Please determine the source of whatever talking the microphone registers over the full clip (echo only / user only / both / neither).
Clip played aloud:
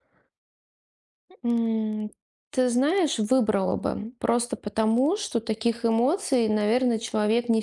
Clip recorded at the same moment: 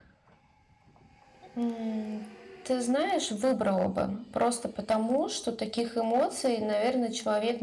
echo only